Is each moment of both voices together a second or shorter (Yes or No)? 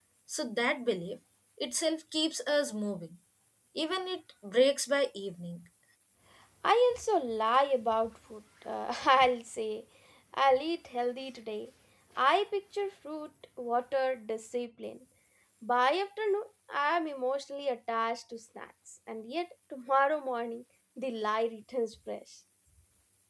Yes